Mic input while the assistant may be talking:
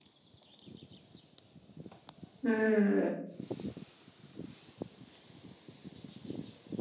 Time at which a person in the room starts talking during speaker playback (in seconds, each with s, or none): 2.4 s